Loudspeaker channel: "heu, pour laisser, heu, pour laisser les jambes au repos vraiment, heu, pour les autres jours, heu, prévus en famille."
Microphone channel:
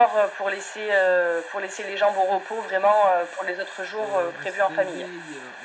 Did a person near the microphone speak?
Yes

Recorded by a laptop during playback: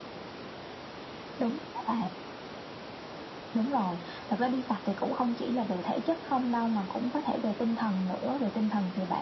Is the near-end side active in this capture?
No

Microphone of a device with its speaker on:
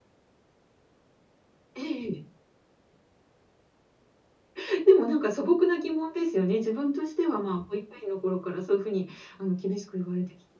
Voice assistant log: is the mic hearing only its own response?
No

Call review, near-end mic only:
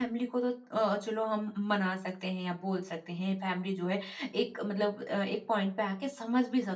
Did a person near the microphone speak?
Yes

